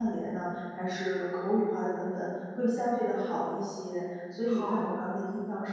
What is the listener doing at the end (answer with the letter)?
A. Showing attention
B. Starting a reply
A